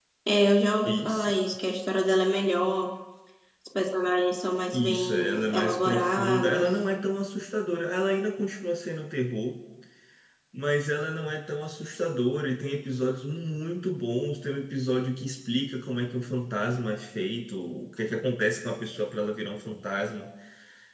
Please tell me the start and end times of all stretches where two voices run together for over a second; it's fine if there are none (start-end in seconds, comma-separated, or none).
4.7-6.7